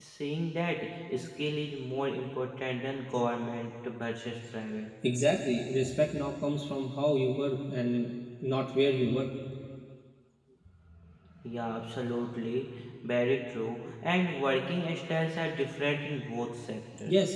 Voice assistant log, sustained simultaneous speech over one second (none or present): none